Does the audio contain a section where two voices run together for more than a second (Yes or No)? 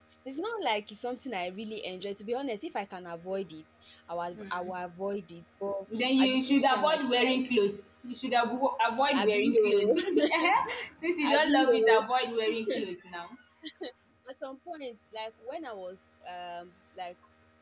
Yes